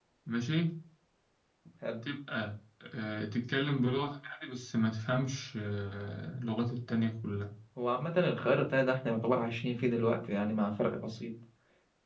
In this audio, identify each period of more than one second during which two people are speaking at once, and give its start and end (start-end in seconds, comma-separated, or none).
none